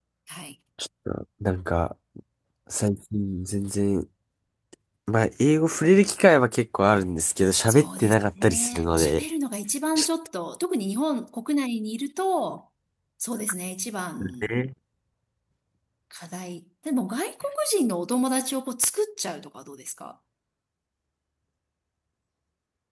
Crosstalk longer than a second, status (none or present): present